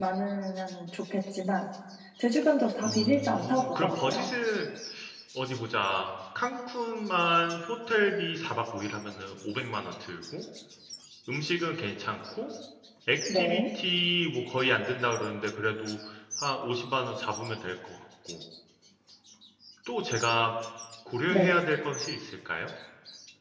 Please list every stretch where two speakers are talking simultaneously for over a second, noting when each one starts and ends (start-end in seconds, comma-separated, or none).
2.8-4.3